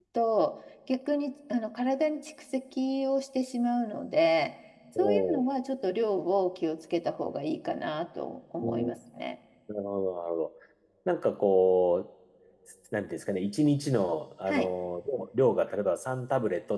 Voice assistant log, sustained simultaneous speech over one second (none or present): none